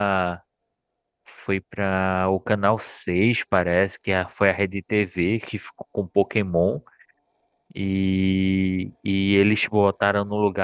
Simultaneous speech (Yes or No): No